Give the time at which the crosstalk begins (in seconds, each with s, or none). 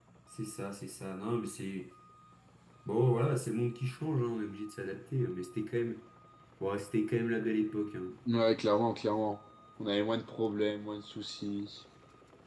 none